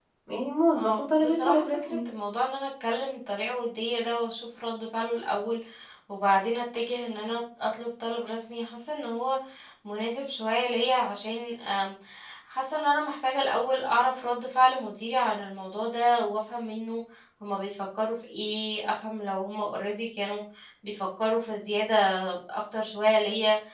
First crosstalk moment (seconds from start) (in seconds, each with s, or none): 0.7 s